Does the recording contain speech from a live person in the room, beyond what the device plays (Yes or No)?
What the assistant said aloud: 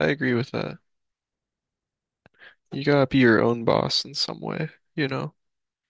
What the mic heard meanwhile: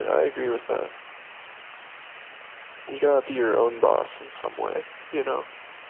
No